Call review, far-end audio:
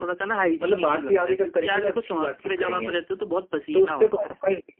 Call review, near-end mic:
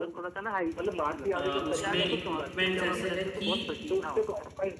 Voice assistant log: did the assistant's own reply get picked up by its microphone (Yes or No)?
Yes